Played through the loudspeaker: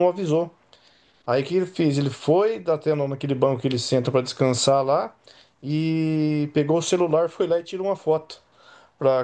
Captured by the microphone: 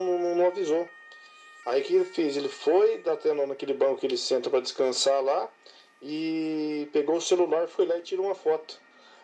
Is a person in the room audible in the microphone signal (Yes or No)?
No